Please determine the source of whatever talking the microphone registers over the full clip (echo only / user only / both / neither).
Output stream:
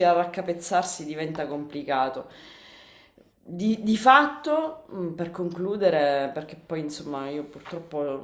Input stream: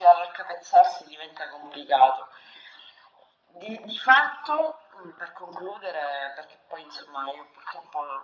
echo only